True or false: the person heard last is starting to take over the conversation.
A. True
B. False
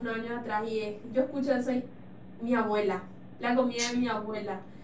B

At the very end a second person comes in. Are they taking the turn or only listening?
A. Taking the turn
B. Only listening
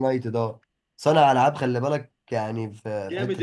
A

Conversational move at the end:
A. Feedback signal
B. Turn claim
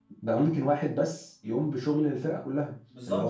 B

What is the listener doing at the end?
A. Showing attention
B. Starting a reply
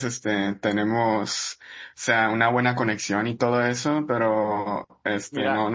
A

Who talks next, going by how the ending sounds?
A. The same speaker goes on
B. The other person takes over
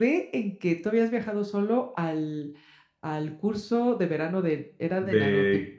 B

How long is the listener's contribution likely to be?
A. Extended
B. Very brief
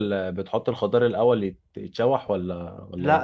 A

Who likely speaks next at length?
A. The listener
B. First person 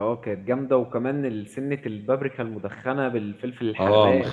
A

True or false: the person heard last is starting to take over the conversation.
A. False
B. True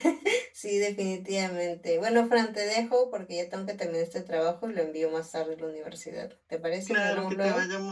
B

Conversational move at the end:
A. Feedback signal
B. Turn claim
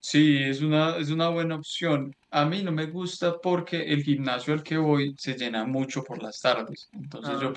A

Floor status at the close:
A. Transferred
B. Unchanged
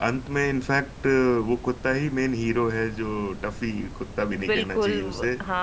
A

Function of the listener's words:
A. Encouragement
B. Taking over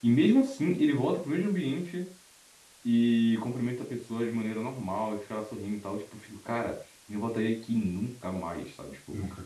A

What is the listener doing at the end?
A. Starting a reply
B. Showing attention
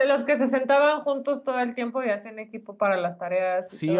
A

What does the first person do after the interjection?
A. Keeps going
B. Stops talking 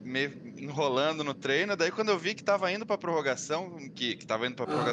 A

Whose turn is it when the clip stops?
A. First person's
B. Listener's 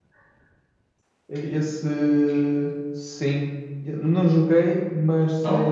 A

